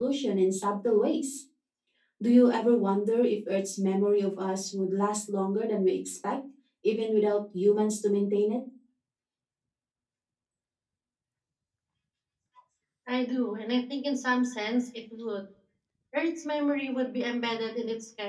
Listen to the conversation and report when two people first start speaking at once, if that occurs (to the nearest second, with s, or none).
none